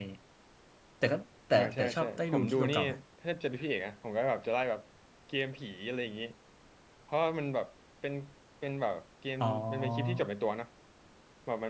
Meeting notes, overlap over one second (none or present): present